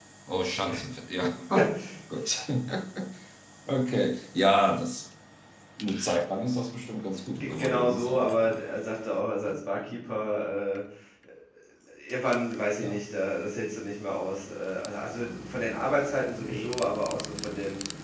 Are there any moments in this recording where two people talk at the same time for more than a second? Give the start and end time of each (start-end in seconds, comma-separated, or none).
7.4-8.6